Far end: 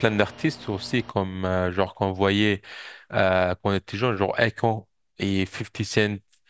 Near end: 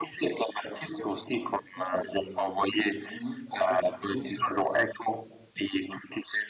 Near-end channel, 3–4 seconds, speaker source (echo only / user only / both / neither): both